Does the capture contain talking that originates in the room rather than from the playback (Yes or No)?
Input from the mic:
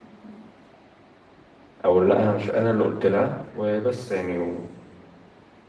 Yes